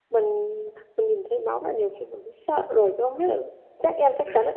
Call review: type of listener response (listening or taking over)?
listening